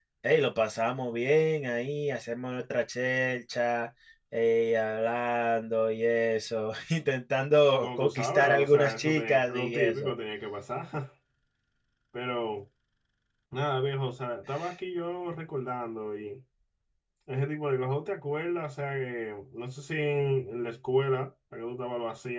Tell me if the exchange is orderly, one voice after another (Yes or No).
No